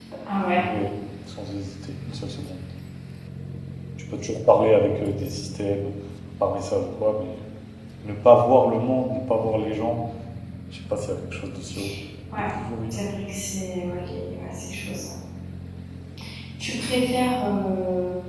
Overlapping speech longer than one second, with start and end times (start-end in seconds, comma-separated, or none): none